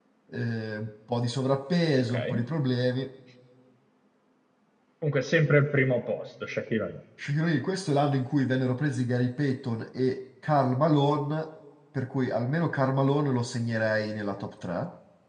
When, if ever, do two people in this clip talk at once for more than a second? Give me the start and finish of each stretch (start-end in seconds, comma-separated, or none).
none